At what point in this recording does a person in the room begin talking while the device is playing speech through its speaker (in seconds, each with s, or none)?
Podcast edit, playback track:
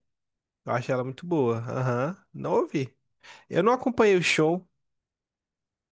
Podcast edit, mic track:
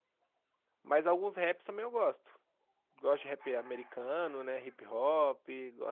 0.8 s